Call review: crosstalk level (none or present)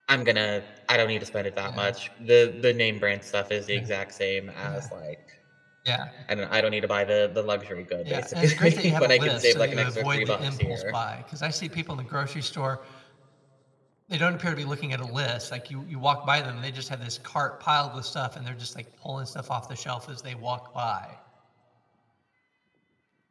present